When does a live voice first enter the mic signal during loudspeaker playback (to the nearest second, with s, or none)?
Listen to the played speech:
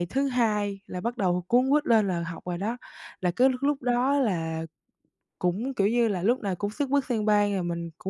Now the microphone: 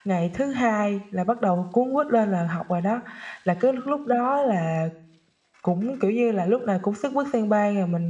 none